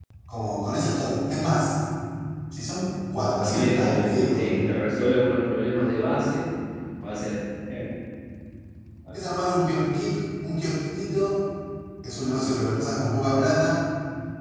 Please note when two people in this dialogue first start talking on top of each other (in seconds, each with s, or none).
3.4 s